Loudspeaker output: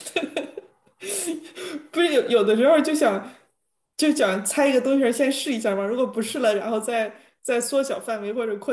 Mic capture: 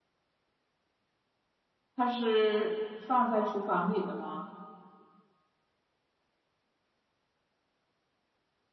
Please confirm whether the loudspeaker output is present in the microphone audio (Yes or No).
No